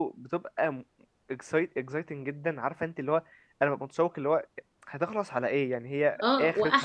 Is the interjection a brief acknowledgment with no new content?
No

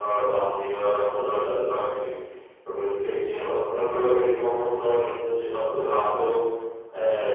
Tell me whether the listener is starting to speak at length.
No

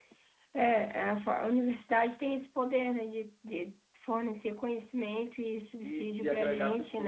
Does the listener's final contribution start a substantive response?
Yes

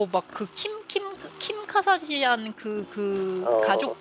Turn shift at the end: No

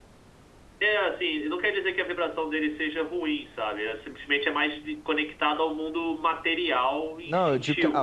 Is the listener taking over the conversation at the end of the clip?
Yes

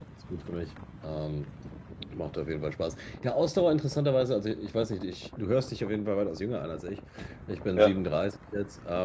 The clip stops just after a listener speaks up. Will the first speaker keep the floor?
Yes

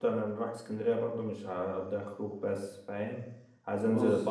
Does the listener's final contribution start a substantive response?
No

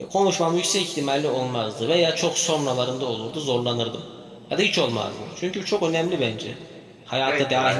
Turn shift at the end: Yes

